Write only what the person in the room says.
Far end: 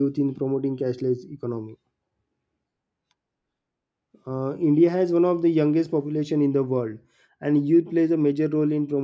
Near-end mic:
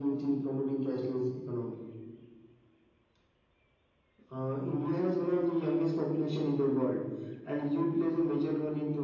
none

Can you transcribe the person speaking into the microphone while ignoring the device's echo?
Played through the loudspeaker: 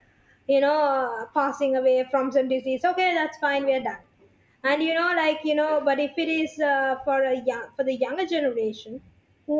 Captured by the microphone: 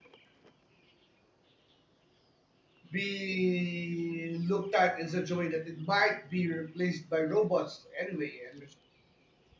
being looked at in such a way that it might be replaced by robots anyway and

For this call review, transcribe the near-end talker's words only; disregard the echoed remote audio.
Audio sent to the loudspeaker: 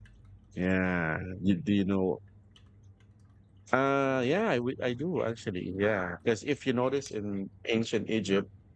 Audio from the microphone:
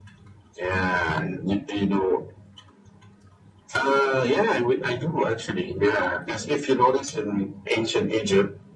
none

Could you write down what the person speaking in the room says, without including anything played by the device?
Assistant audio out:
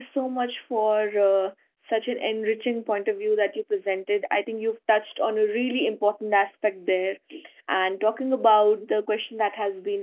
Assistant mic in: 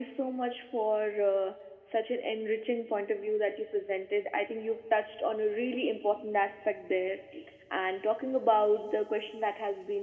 none

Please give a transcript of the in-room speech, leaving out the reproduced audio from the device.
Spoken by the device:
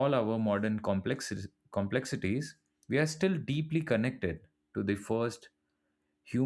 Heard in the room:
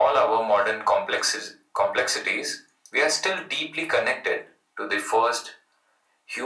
none

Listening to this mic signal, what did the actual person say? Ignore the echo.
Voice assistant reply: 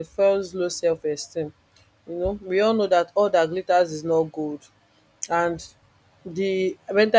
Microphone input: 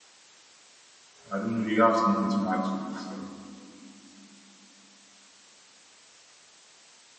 I don't know, do you have something to add to it? So,

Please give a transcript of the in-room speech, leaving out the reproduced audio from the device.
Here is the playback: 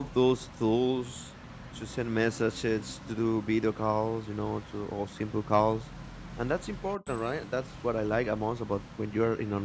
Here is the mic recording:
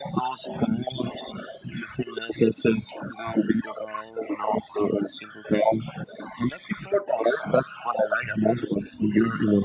none

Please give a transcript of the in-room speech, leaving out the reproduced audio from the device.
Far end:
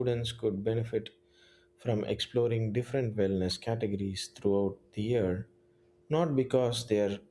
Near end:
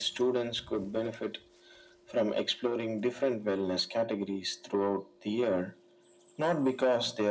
none

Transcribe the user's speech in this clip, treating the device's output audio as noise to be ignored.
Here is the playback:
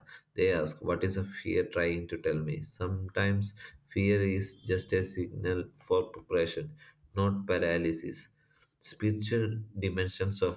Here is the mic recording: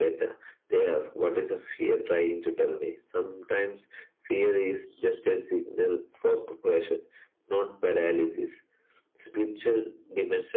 none

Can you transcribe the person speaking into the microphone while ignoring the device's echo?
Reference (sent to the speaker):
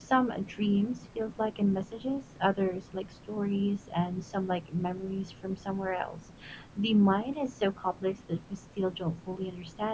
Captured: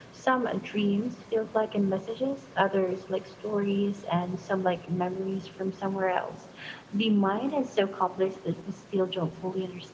none

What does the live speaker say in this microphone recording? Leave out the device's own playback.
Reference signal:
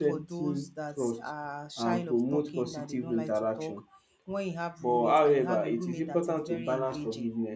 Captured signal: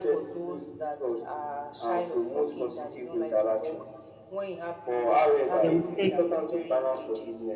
They will take

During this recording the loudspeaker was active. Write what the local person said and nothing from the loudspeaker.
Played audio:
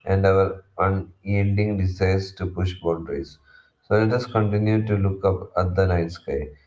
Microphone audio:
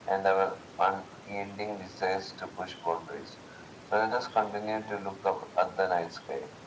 none

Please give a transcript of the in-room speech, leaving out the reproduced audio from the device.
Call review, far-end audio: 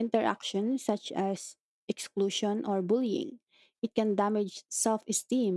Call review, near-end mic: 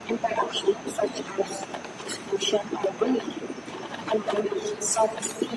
none

